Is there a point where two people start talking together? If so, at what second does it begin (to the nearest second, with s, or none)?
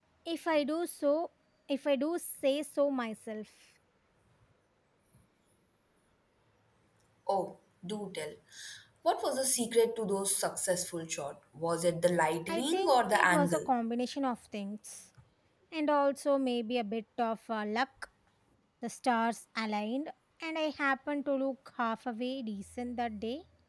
12 s